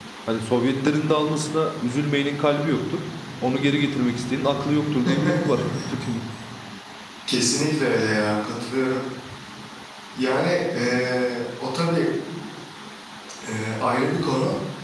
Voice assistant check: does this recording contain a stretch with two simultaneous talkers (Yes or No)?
No